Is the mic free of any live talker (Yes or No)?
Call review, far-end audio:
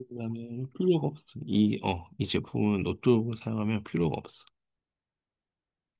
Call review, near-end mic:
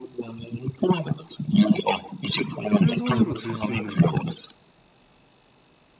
No